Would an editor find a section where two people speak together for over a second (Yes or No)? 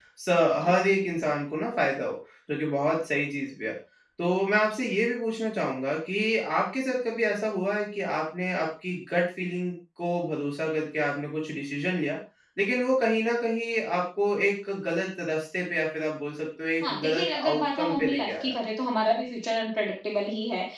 Yes